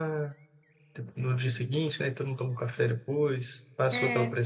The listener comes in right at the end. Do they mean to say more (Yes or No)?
No